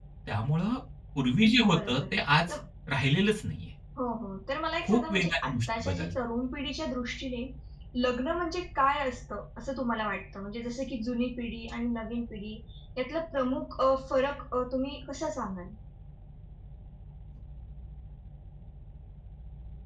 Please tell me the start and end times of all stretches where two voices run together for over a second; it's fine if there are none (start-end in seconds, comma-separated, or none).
4.8-6.1